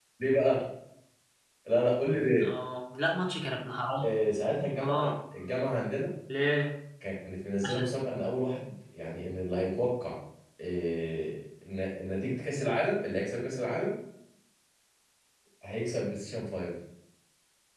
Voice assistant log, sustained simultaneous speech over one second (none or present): none